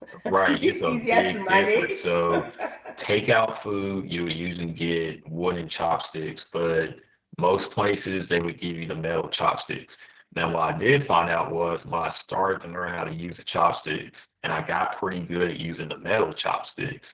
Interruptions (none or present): present